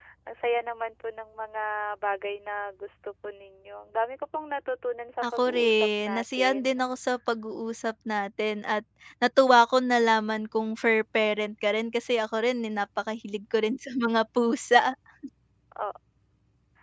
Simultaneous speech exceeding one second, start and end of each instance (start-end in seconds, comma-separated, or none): 5.2-6.8